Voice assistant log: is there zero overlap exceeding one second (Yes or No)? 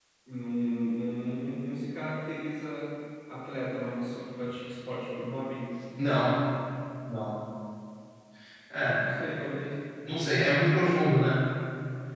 Yes